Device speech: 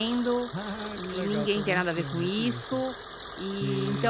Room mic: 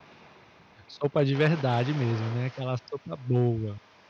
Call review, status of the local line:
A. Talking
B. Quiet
A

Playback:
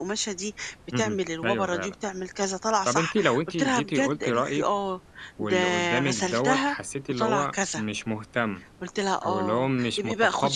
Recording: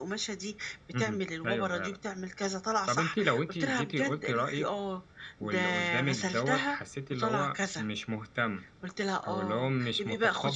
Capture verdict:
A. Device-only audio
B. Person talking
A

